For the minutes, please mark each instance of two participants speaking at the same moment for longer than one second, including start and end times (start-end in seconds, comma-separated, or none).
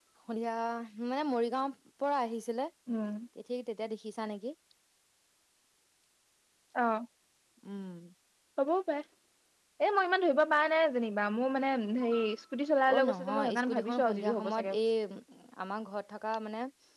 12.9-14.8